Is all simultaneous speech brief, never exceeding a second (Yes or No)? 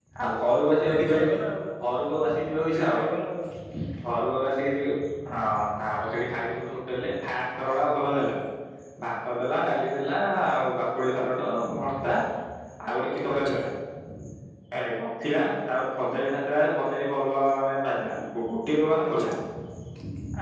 Yes